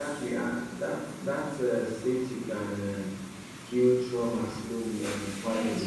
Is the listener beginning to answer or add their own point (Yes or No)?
Yes